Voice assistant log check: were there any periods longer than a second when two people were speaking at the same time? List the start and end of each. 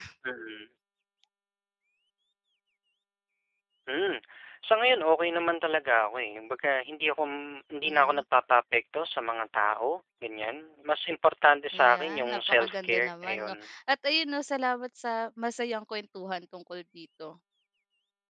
11.8-13.5

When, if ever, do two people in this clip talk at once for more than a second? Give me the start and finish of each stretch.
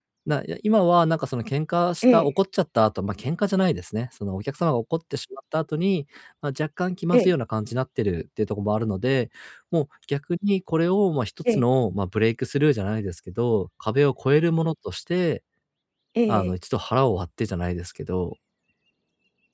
none

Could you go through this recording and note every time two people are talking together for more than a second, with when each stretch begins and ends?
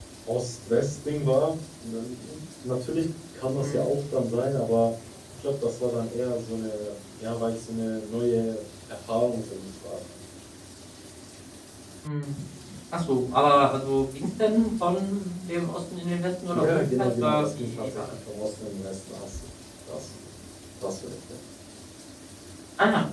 16.5-18.1

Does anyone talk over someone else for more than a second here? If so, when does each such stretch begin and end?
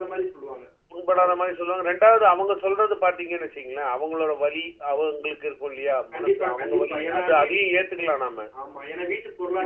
6.1-7.5

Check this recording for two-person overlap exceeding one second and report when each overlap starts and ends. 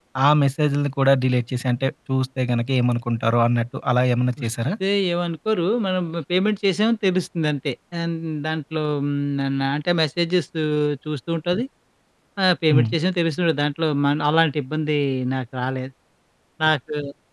none

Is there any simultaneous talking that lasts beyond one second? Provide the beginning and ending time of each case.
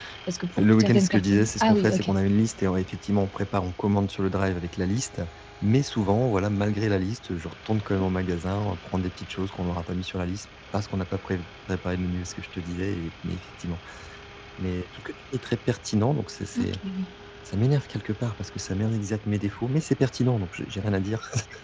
0.6-2.1

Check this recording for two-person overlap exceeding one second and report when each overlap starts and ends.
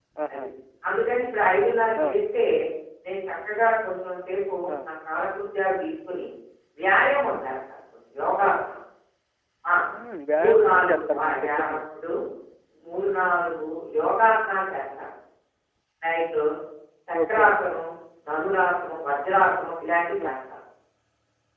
10.4-11.8

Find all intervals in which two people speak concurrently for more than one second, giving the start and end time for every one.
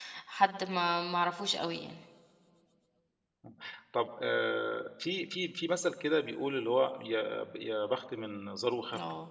none

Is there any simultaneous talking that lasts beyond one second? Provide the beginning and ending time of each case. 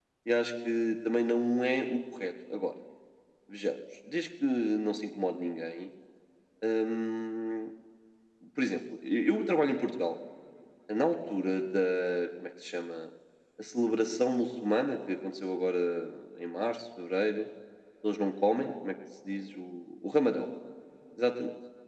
none

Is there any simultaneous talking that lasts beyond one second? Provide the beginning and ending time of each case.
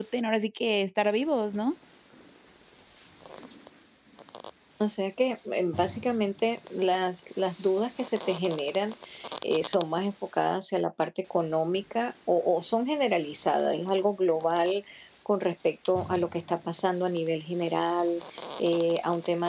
none

